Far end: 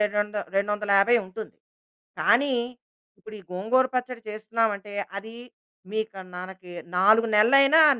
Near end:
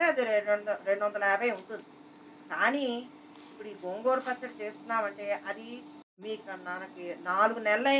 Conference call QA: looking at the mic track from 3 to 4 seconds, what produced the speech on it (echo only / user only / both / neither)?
echo only